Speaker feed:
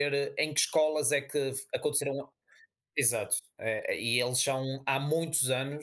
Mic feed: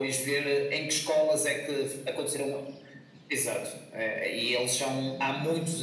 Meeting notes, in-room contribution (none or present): none